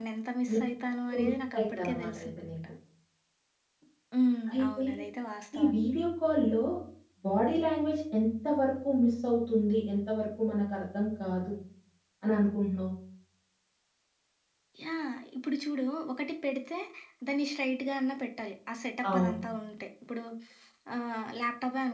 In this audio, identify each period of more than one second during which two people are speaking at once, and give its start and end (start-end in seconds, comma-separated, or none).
1.1-2.6